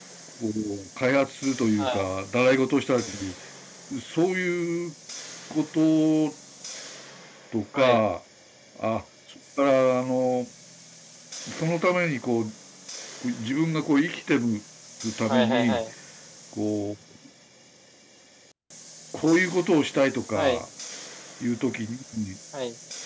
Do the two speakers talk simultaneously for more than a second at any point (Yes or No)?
No